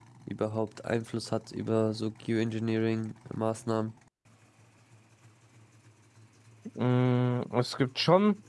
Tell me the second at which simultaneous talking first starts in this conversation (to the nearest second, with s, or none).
none